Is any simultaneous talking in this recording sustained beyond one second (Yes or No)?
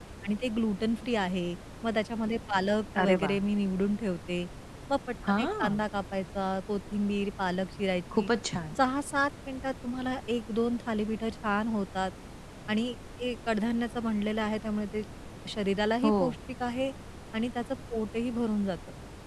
No